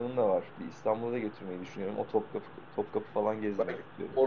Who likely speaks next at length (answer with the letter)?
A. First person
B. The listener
B